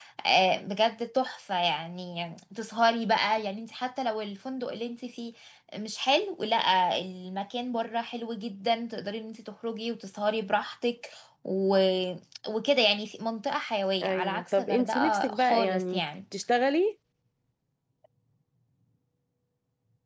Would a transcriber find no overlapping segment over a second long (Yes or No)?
No